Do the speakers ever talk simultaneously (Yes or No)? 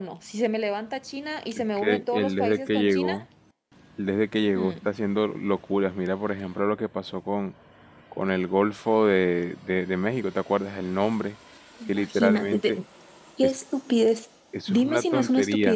Yes